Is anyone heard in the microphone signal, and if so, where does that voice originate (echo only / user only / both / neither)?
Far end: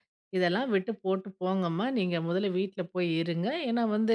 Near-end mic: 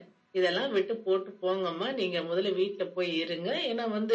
echo only